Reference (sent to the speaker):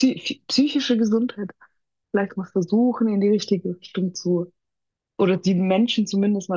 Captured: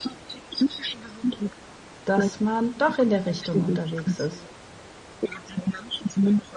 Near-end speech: present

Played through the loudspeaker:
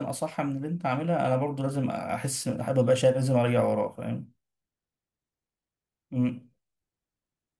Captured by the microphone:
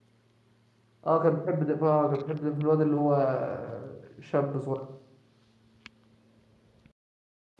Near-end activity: present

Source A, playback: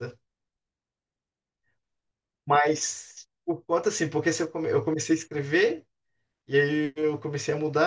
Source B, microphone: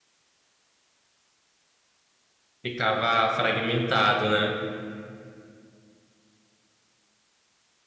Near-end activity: present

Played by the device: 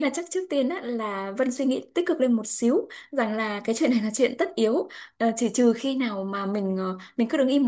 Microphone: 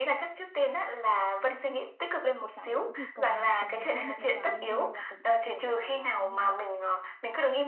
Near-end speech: present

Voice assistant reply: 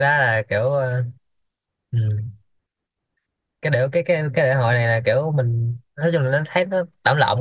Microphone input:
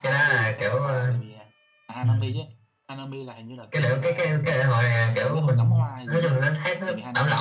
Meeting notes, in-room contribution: present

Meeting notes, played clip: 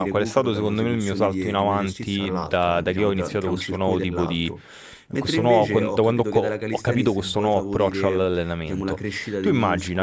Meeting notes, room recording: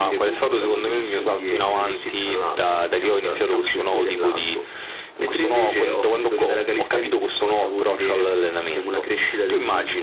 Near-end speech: none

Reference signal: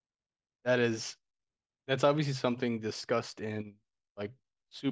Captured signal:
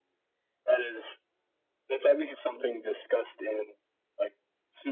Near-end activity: none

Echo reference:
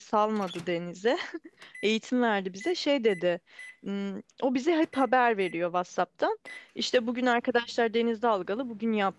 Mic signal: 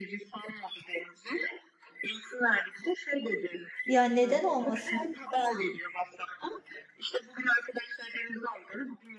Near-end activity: present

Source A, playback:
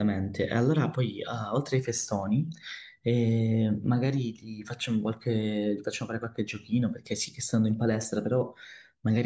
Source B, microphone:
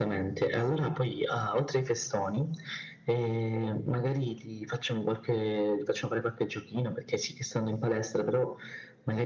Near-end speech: none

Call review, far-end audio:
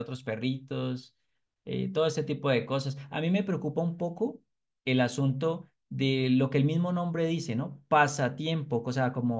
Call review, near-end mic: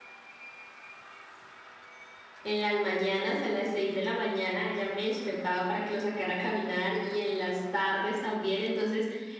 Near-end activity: present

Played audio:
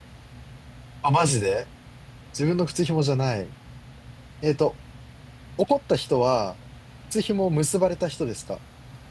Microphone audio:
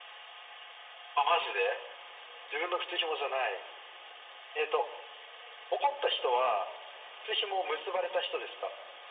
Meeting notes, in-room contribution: none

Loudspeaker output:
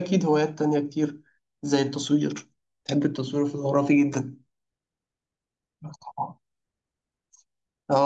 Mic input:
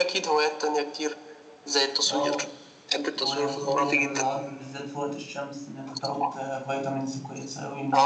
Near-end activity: present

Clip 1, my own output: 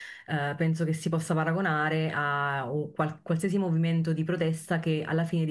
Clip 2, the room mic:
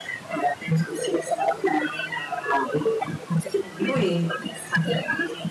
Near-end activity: present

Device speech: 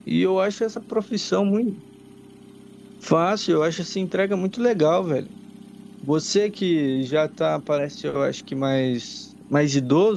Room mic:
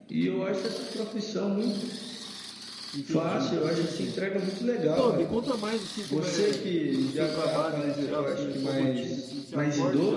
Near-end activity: present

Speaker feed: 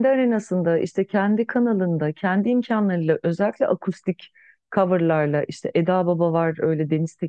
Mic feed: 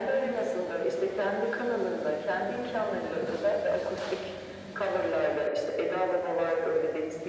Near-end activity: none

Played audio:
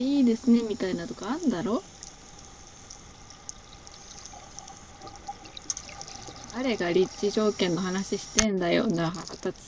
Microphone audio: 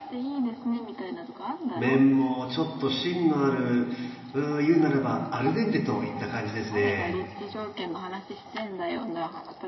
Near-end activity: present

